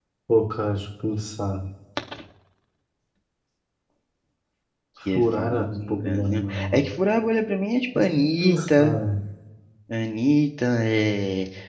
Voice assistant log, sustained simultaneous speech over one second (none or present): present